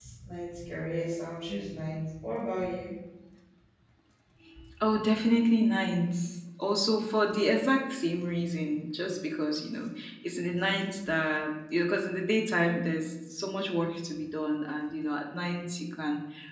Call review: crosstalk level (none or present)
none